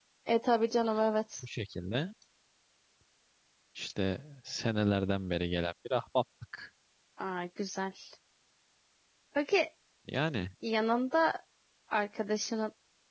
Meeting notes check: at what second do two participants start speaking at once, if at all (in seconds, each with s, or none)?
none